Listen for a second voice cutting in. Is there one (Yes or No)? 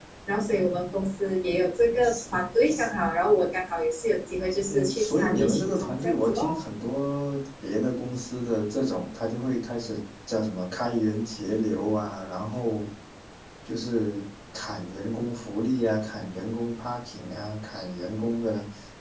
Yes